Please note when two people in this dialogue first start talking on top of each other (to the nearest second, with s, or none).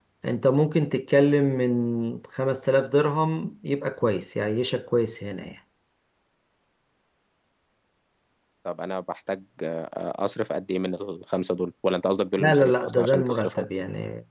12 s